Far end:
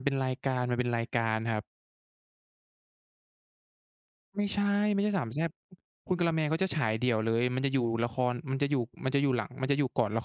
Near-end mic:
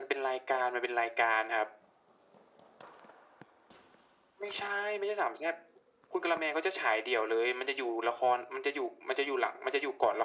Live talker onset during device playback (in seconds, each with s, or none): none